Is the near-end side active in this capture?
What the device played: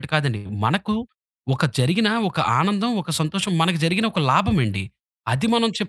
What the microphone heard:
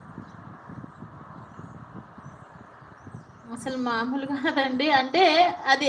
Yes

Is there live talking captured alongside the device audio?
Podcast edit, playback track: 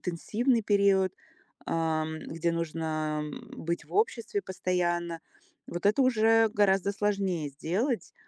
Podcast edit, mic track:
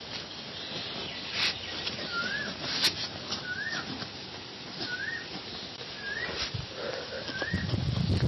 No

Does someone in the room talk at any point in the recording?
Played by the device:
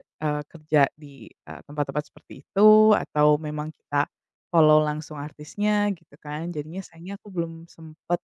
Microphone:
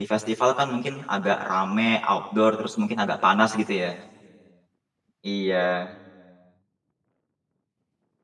Yes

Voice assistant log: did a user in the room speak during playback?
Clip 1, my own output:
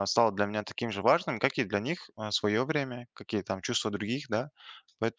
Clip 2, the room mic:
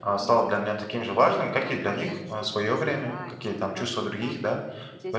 Yes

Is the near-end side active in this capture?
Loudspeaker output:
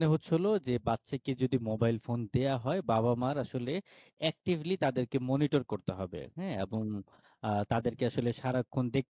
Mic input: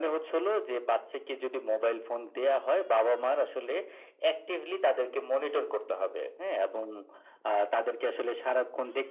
No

